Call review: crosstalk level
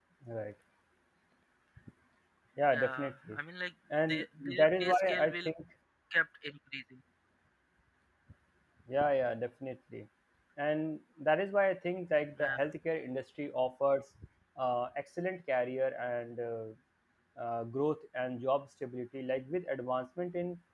present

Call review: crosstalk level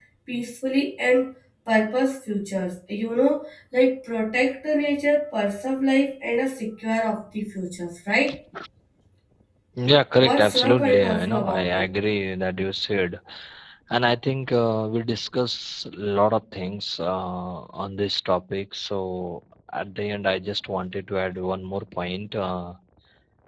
present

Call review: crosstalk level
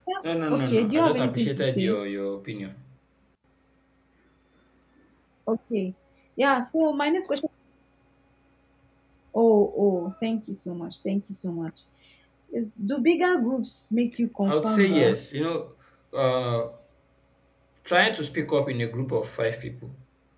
present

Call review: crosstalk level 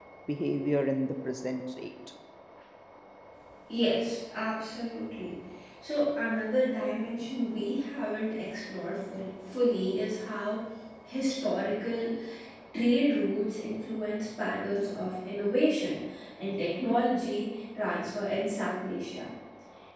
none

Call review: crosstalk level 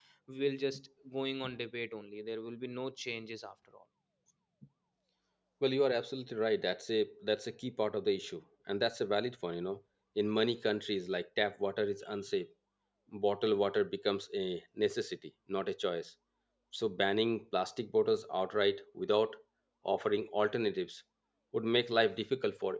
none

